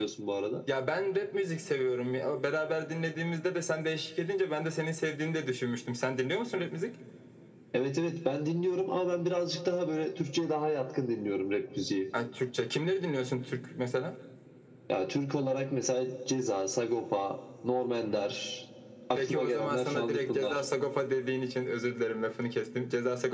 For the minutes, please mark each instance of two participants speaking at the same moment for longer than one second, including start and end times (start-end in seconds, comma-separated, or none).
19.1-20.6